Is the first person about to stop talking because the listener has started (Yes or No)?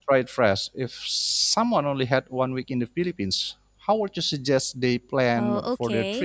Yes